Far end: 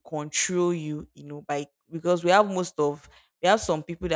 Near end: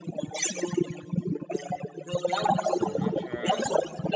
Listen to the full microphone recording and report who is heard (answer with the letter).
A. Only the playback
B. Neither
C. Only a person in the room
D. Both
D